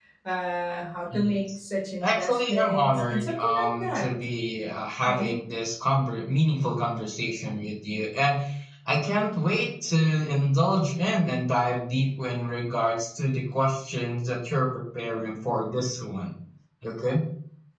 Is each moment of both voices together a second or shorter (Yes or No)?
No